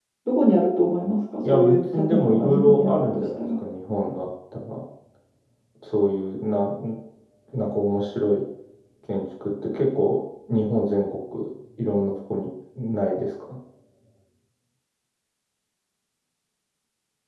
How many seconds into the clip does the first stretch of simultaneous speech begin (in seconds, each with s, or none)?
1.4 s